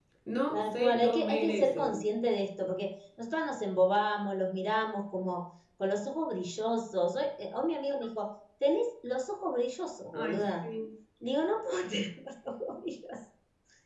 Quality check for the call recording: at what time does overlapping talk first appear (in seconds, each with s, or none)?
0.5 s